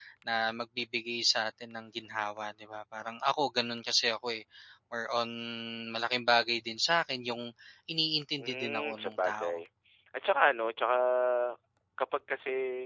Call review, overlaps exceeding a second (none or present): present